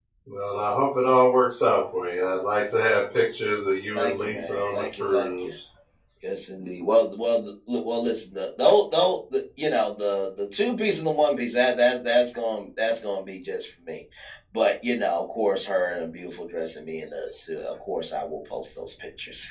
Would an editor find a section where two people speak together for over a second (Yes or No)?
Yes